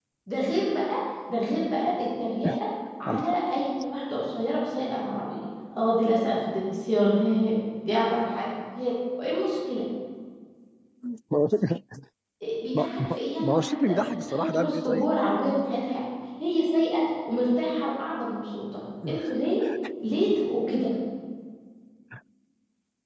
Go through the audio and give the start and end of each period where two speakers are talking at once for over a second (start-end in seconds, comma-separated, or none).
12.7-15.1